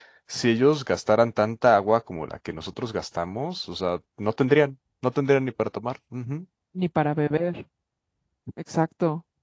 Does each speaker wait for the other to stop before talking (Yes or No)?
Yes